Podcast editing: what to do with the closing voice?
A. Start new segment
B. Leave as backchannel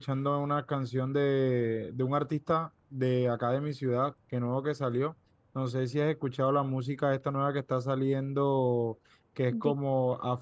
B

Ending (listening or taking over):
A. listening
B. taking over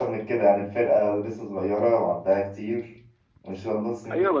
B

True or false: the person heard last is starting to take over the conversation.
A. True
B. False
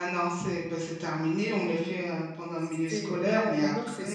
A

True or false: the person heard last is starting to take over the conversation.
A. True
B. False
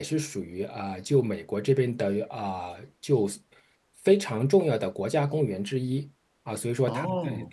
B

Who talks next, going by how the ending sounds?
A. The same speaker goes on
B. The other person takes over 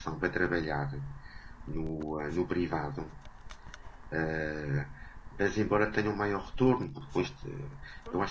A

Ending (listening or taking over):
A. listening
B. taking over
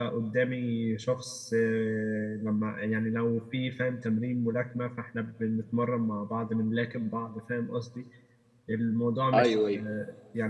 A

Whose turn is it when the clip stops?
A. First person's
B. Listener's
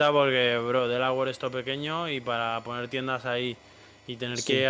A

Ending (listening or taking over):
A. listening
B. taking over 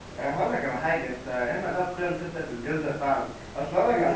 B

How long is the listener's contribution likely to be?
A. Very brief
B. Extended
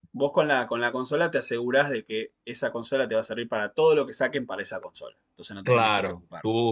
B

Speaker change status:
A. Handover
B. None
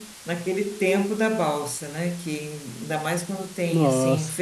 A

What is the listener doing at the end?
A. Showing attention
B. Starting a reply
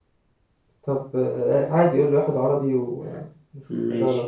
B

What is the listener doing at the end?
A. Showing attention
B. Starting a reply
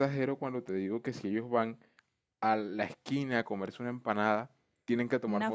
A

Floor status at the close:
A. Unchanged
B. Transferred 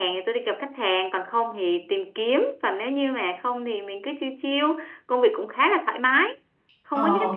A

